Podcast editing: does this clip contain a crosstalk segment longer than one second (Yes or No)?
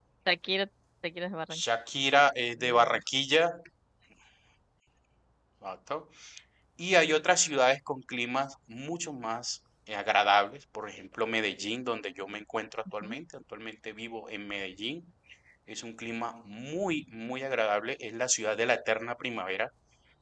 No